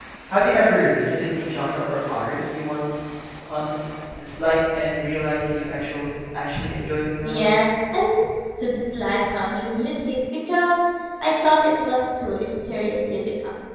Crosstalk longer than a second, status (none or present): none